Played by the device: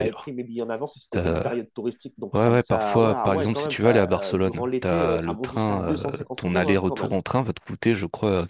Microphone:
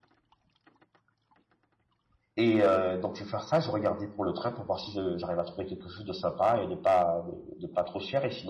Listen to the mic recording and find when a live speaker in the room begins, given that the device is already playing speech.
2 s

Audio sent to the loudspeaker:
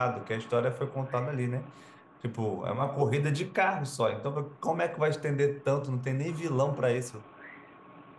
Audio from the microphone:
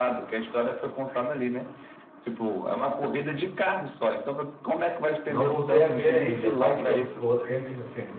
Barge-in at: 5 s

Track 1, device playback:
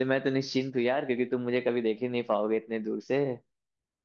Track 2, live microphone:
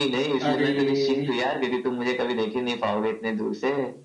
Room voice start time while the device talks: 0 s

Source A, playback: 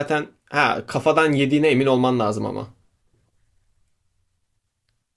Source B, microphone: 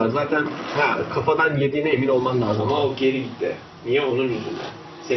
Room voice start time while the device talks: 3 s

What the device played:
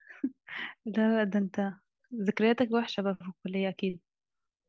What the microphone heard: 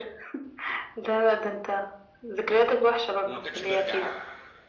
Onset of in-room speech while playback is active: 3 s

